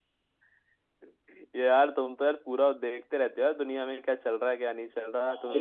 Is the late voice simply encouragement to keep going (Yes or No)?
Yes